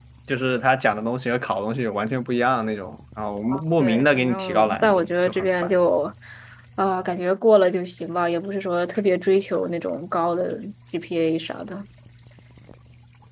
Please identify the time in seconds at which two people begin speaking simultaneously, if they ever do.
3.8 s

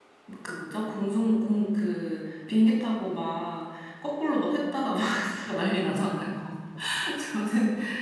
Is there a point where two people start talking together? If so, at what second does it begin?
none

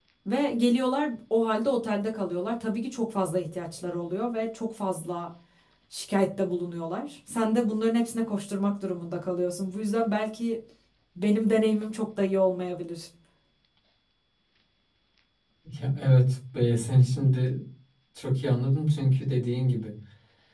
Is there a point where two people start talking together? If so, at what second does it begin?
none

